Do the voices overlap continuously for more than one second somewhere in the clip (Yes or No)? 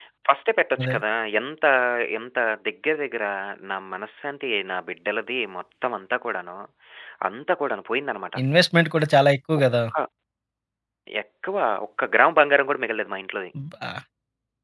No